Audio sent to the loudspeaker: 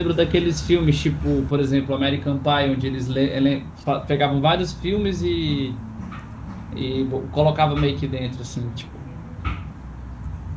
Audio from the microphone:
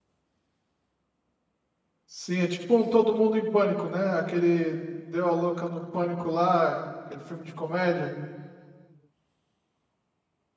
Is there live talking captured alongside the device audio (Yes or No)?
Yes